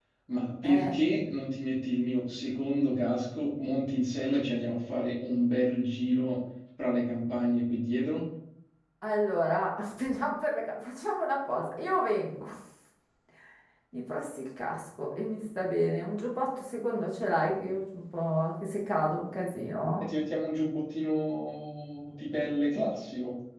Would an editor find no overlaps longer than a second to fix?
Yes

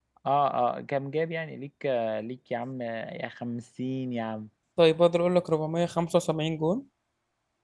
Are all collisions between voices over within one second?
Yes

